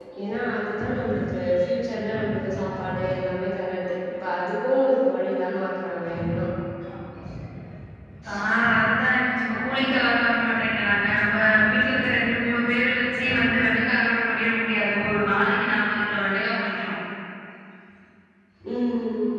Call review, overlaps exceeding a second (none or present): none